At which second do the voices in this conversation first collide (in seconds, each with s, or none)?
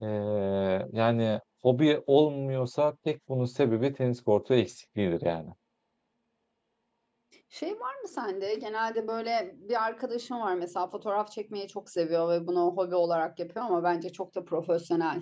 none